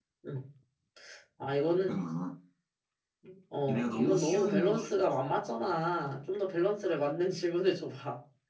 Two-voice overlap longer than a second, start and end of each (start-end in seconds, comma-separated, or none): 3.7-4.9